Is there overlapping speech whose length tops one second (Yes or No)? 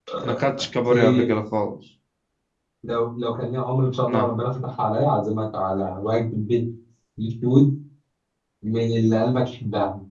No